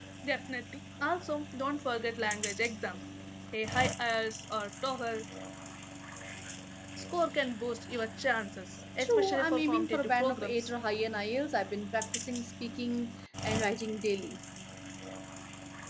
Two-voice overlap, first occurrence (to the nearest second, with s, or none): 9 s